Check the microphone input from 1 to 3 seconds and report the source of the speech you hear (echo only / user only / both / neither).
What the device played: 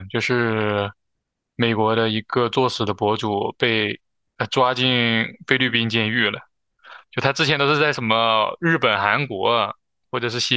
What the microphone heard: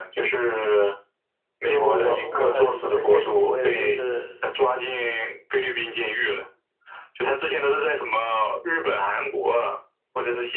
both